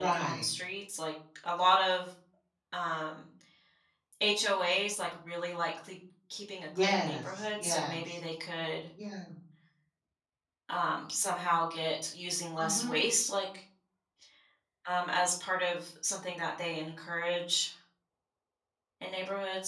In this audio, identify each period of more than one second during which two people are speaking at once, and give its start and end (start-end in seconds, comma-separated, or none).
6.8-8.2